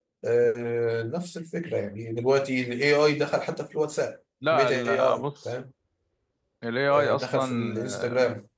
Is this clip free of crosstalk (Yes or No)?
No